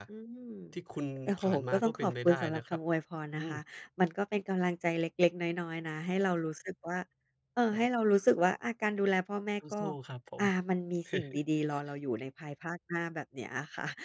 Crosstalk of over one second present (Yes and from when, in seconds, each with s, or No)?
Yes, from 1.3 s